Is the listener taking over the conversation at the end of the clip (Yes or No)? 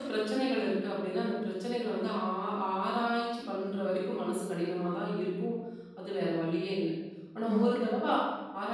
No